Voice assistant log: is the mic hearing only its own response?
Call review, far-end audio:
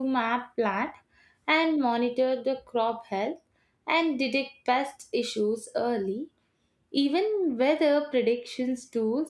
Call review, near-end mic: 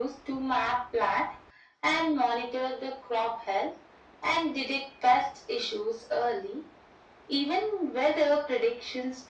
Yes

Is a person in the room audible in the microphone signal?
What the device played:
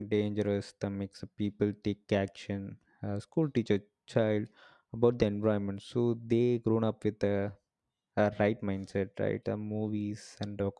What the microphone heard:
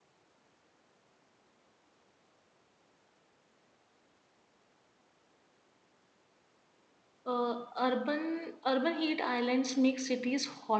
Yes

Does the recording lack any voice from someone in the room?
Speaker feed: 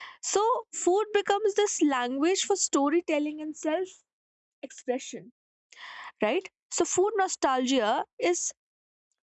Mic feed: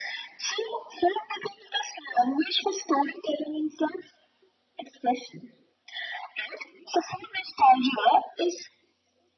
Yes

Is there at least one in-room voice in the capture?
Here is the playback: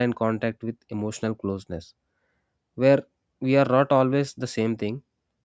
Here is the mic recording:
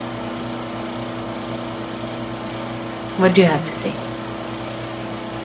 Yes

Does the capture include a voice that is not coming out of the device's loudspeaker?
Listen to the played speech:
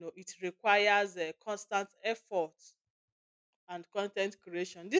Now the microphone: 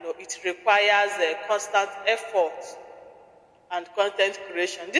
No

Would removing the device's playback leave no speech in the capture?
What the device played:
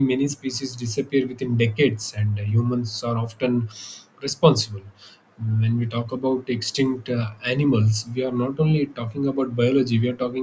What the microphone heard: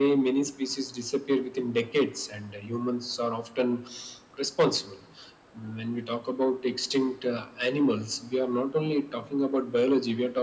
Yes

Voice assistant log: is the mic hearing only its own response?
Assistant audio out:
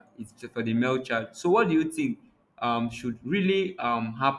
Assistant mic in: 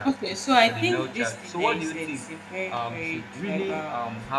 No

